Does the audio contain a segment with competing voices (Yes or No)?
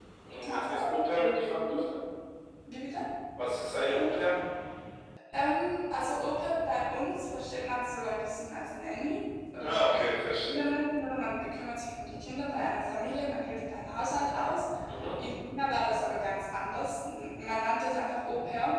Yes